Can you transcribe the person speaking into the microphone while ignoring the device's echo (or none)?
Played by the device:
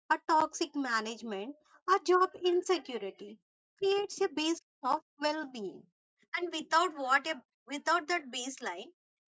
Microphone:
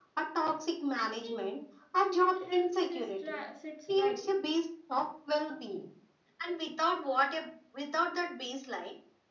I think mental health sits, ri- sits right,